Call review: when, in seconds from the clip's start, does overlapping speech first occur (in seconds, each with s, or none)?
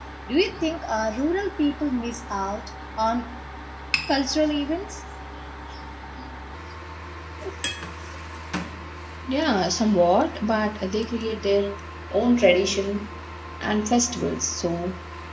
none